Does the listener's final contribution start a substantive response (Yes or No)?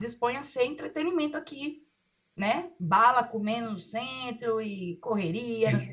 Yes